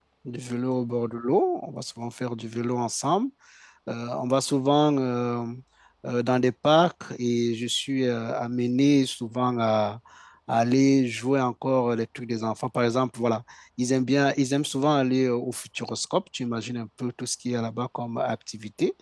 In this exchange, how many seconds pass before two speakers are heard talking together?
none

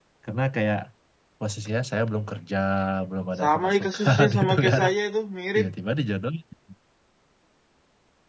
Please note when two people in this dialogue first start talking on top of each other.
3 s

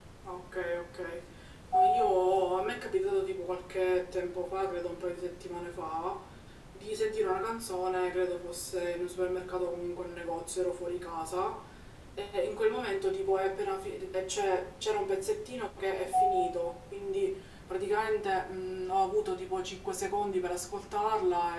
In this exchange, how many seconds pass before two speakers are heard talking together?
none

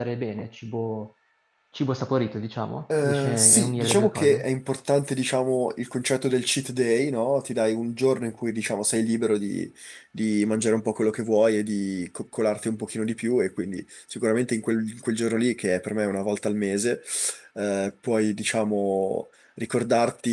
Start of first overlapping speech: 3 s

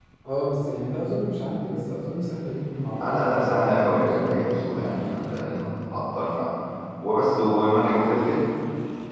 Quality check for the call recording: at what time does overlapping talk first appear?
3 s

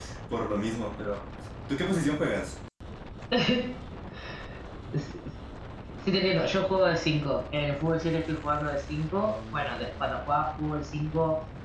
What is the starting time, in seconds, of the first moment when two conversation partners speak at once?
none

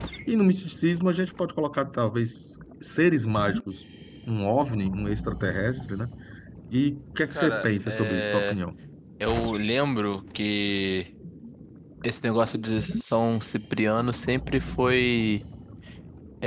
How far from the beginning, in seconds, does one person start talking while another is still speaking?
7 s

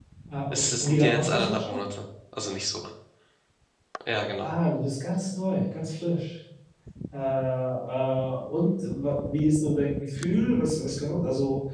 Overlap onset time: 1 s

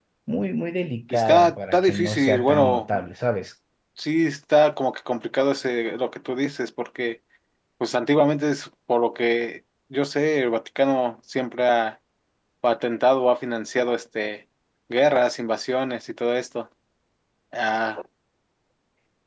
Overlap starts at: 1 s

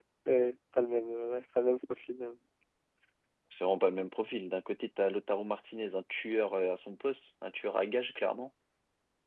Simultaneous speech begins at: none

